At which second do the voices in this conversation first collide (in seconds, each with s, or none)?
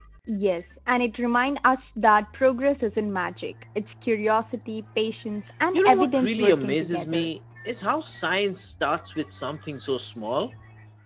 5.7 s